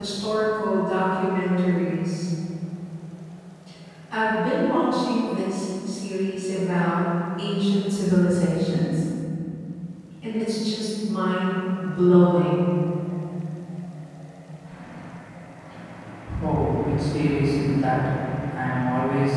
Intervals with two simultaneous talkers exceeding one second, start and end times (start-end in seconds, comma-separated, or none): none